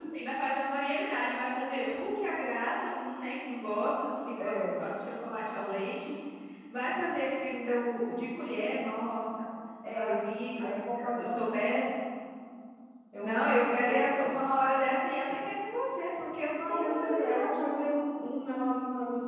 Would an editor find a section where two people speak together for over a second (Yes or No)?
Yes